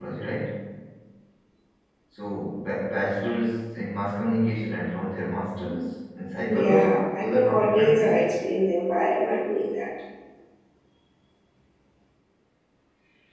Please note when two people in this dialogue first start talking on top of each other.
6.4 s

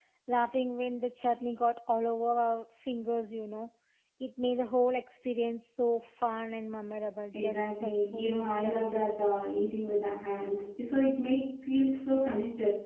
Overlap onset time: 7.3 s

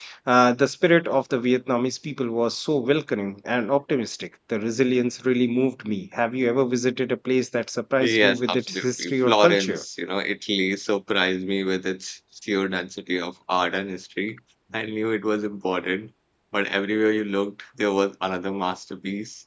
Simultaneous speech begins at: 8.0 s

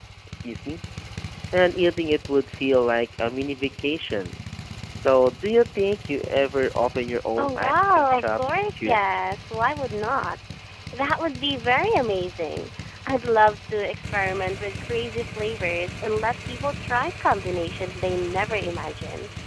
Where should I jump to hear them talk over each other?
7.4 s

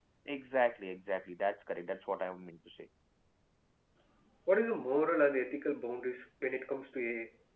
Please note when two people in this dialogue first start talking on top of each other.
none

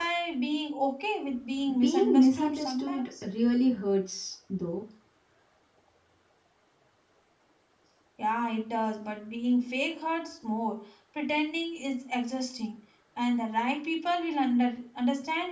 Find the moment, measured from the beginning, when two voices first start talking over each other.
1.7 s

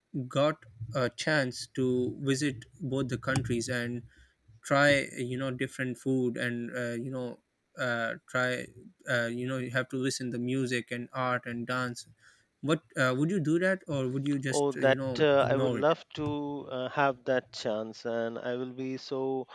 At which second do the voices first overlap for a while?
14.5 s

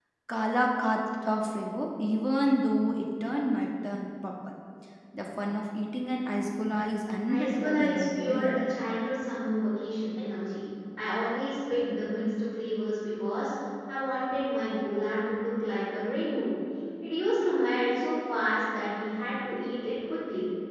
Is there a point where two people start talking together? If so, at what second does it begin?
7.3 s

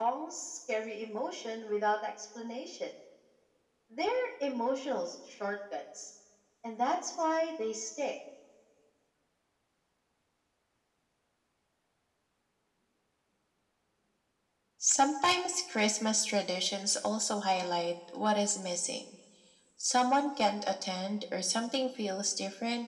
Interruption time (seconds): none

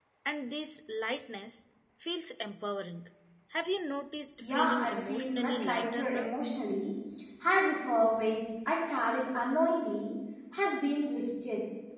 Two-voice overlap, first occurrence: 4.4 s

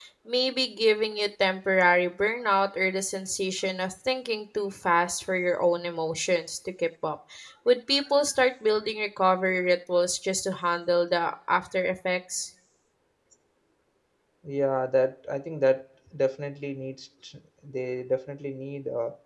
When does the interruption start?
none

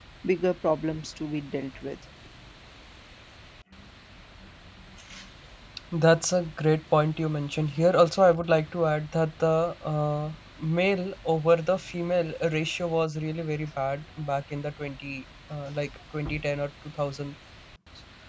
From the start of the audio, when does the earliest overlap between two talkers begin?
none

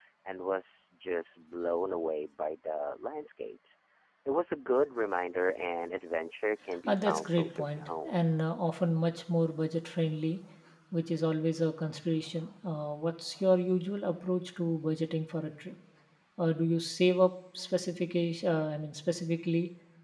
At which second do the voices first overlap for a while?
6.9 s

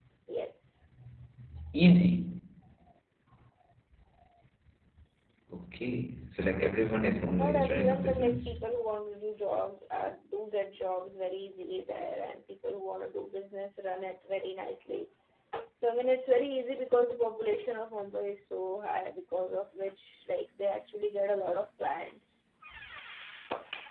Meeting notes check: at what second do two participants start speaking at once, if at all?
7.4 s

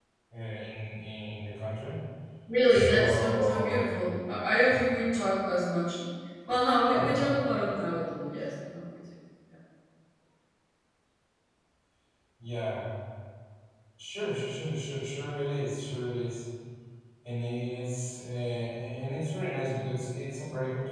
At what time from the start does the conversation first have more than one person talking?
2.7 s

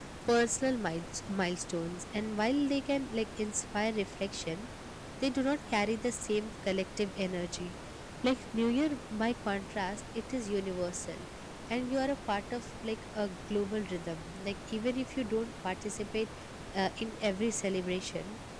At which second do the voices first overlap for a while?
none

